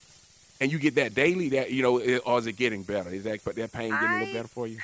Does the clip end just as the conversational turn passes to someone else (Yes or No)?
Yes